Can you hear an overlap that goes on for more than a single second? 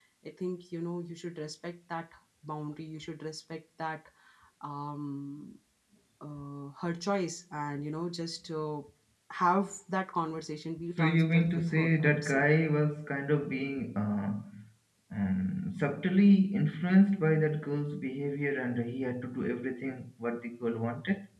Yes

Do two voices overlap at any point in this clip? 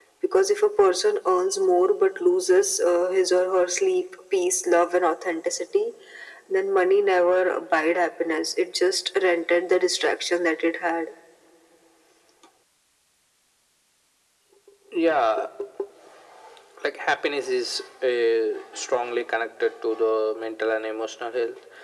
No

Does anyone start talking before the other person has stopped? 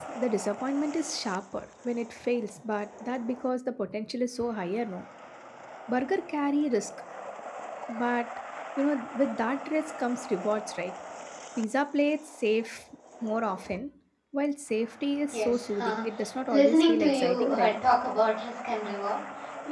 Yes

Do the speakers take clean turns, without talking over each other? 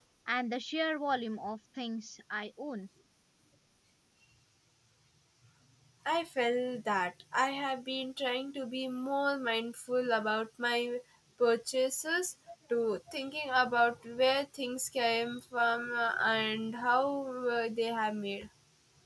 Yes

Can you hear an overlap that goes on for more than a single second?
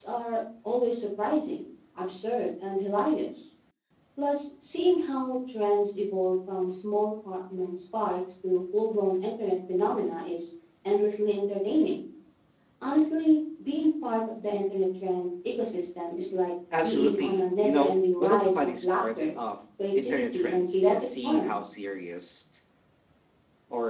Yes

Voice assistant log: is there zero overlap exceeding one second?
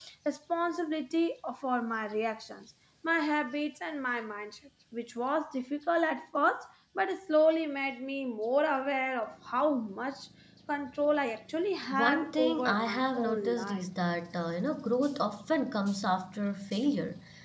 No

